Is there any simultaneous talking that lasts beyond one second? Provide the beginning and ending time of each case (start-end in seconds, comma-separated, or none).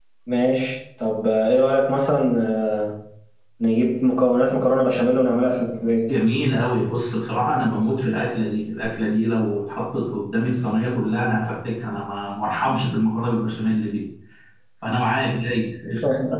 none